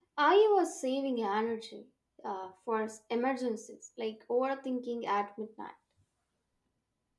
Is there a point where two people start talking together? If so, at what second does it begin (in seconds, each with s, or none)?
none